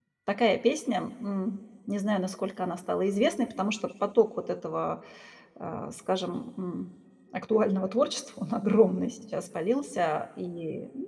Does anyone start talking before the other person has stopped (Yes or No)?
No